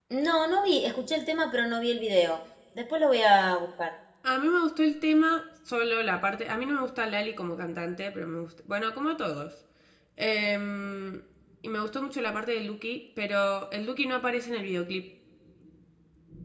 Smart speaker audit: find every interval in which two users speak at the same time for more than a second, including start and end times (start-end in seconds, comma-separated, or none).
none